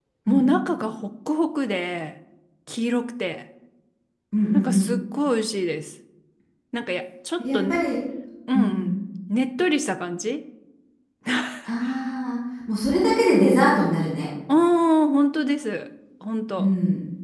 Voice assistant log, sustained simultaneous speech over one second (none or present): none